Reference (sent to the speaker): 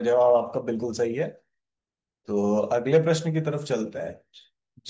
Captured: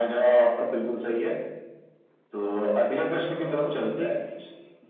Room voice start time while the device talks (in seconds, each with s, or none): 3.1 s